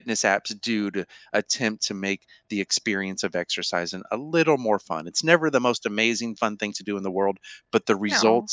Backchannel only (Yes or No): Yes